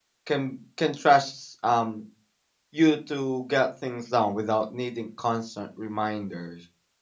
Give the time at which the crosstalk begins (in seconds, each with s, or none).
none